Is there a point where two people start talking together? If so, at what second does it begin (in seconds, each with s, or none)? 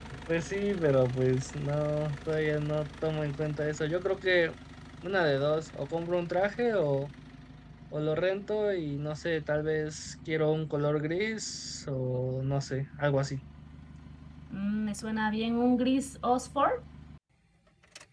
none